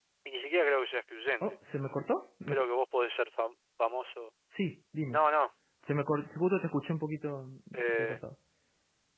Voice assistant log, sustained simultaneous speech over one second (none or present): none